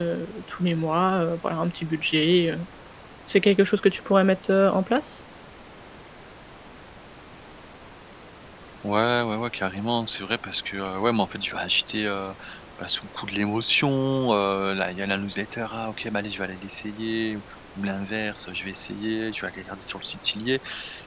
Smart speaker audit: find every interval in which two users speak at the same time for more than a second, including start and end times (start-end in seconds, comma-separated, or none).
none